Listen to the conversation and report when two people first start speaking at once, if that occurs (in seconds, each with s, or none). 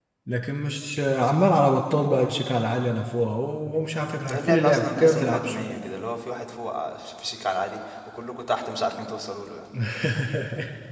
4.3 s